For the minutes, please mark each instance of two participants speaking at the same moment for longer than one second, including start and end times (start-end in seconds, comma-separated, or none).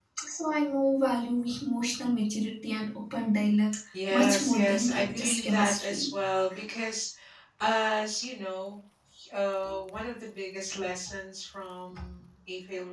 4.1-6.1